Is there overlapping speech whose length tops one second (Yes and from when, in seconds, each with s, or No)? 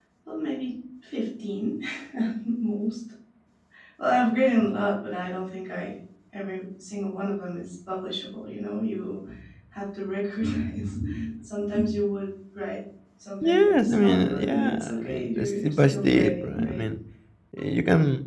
Yes, from 13.4 s